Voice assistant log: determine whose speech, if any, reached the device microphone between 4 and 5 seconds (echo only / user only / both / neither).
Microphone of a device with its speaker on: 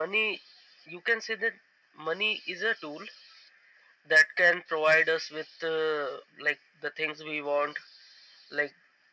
echo only